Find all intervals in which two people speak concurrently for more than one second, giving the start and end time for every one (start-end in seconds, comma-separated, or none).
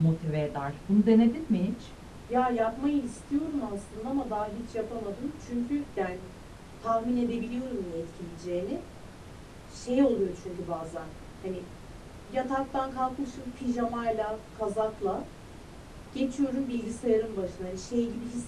none